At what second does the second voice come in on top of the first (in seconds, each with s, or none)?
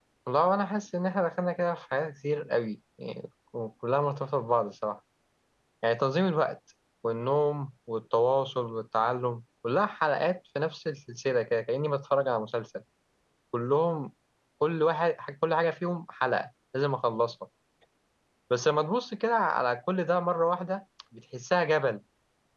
none